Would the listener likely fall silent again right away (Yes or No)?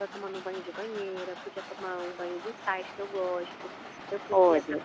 Yes